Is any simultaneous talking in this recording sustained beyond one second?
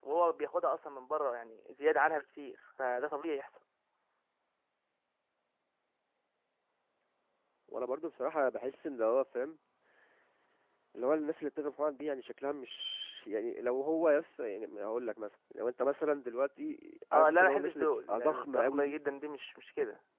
Yes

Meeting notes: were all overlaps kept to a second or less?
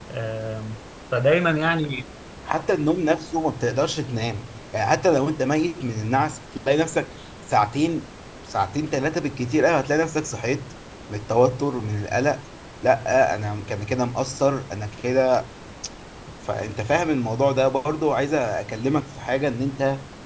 Yes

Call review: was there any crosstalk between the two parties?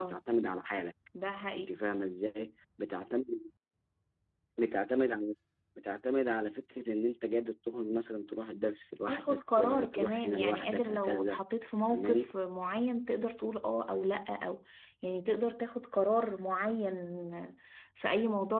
Yes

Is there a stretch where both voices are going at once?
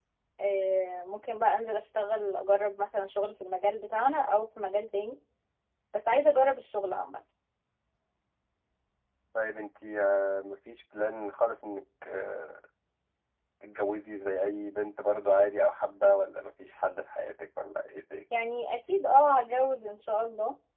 No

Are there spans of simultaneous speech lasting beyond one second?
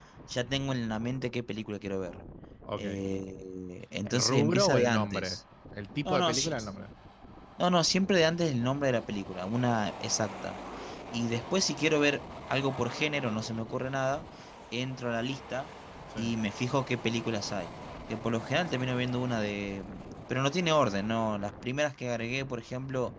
Yes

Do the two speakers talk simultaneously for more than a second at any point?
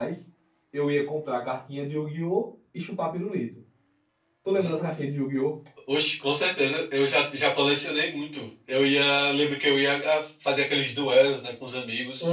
No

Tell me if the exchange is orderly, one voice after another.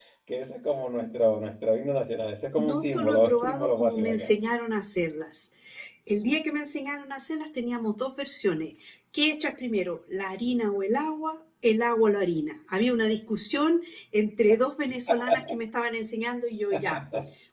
No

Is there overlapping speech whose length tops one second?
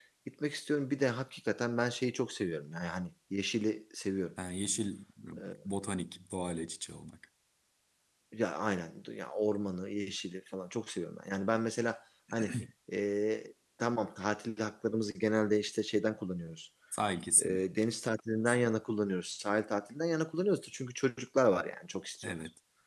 No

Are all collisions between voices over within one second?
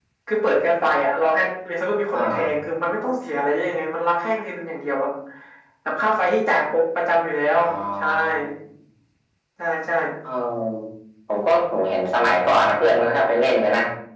Yes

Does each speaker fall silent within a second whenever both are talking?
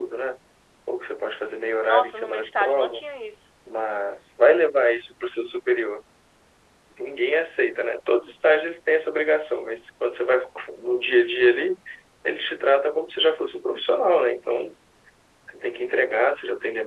No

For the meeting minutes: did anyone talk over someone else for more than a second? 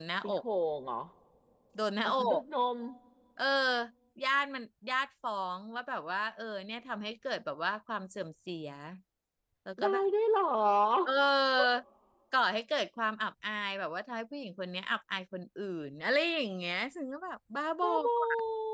No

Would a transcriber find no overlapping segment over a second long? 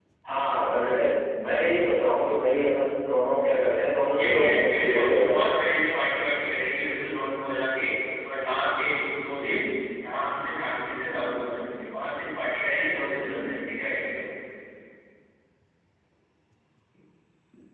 No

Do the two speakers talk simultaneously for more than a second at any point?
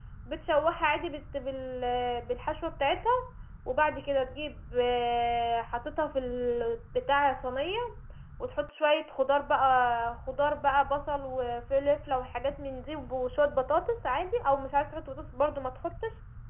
No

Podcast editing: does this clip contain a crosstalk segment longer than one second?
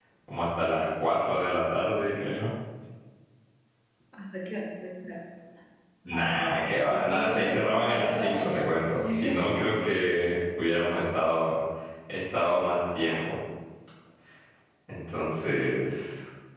Yes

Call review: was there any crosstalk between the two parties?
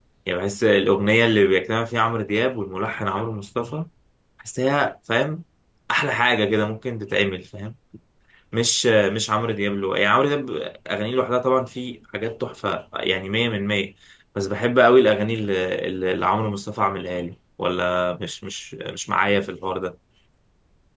No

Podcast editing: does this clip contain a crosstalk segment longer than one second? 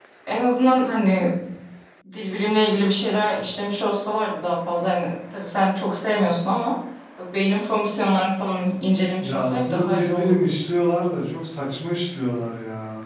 Yes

